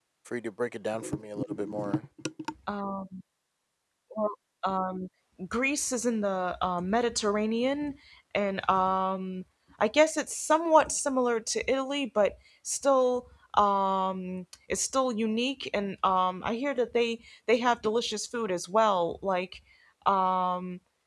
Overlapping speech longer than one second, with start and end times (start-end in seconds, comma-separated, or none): none